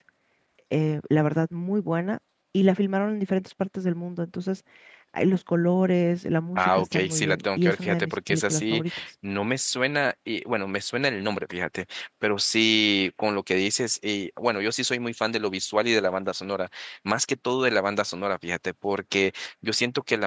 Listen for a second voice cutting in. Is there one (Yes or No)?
Yes